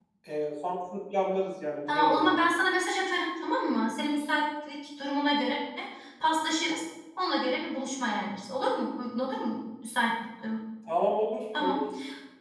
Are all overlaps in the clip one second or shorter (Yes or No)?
Yes